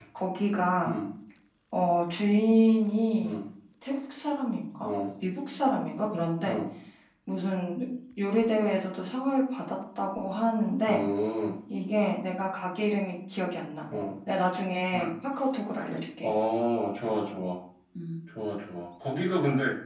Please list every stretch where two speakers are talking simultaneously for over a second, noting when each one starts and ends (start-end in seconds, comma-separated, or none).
none